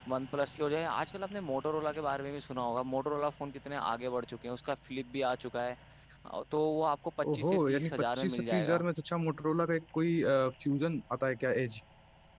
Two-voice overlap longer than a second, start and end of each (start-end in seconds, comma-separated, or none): 7.3-8.8